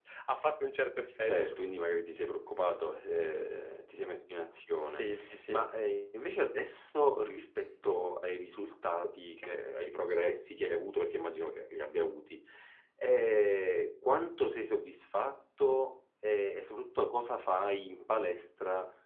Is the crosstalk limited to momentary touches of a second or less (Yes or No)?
Yes